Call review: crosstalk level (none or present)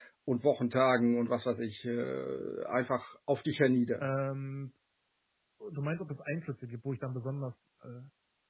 none